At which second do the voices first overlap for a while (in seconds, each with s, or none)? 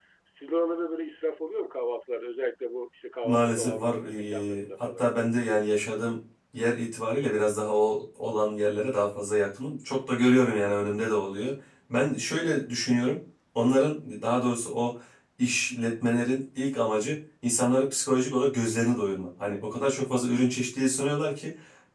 3.2 s